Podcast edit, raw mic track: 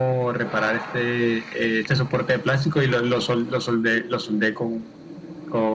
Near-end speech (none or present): none